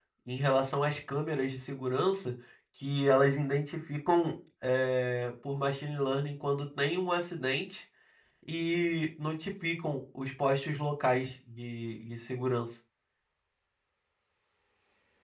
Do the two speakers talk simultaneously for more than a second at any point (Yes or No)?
No